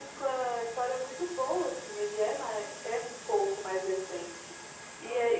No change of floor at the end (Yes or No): Yes